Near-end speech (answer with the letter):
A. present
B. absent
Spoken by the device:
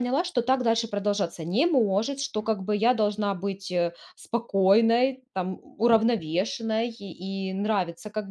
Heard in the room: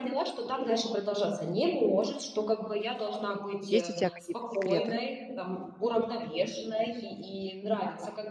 A